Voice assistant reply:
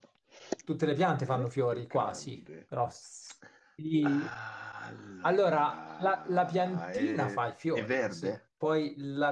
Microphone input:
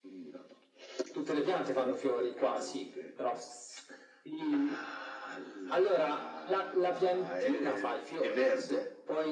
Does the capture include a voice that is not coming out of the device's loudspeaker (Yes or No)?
No